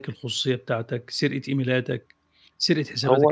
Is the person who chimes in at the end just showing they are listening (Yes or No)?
Yes